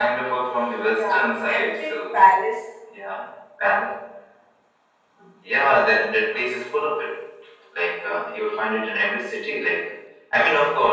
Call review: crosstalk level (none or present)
present